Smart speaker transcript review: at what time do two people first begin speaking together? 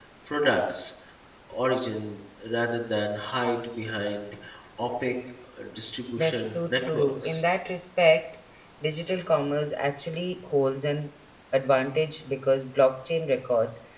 6.2 s

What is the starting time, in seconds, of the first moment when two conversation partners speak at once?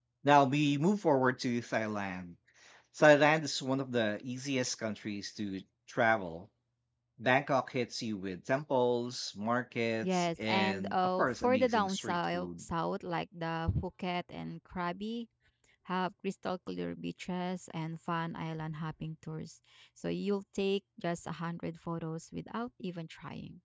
10.0 s

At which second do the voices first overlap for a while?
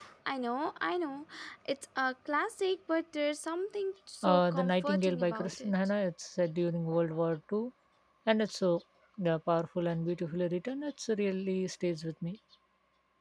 4.2 s

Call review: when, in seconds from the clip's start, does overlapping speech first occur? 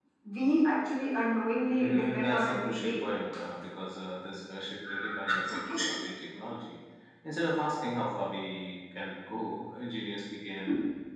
1.7 s

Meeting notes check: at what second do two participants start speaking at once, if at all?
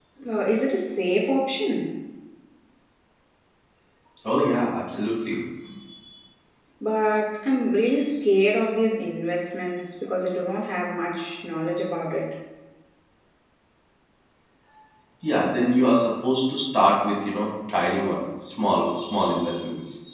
none

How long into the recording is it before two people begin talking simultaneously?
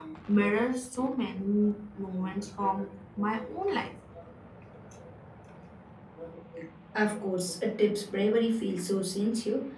none

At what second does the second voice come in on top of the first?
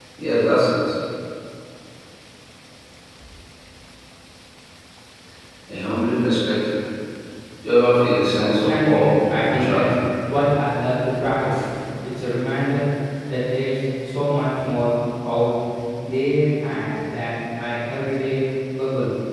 8.4 s

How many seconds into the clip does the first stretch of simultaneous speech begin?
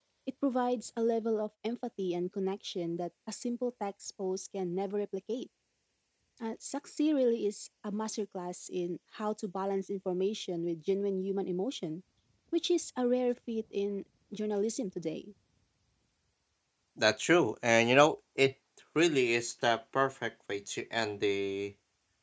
none

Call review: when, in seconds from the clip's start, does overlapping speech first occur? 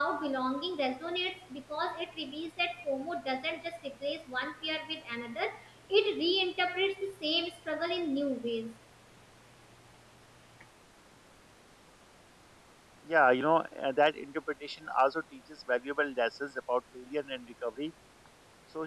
none

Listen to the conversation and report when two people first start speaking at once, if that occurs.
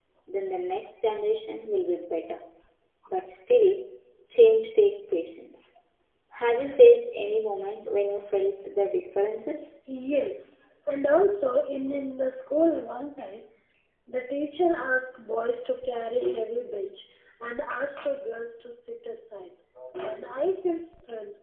none

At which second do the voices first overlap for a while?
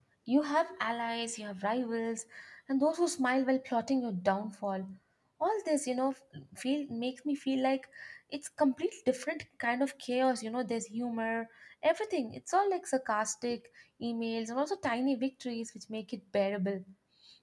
none

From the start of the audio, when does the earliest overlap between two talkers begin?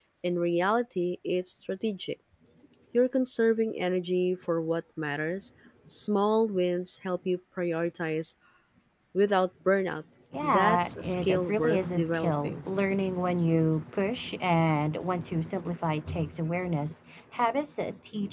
10.4 s

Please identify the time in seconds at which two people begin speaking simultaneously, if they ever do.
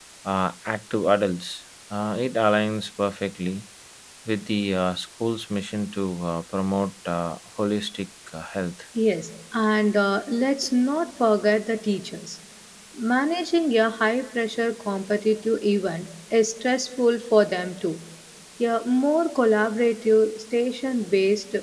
none

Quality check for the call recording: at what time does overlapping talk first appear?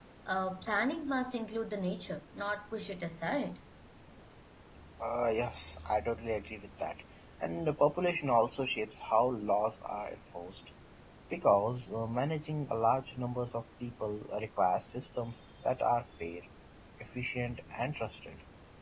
none

